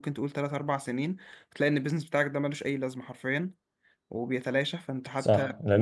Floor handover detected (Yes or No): Yes